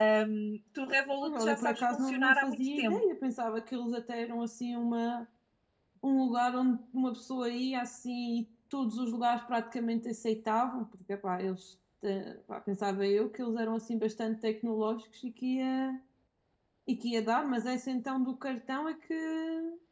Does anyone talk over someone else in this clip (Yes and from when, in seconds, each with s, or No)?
Yes, from 1.2 s